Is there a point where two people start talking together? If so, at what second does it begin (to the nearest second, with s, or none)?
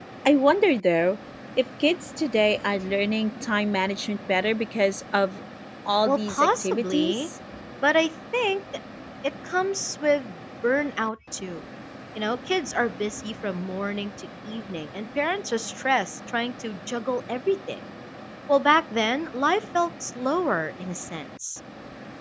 6 s